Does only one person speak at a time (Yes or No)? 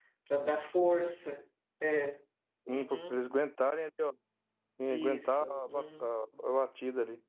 No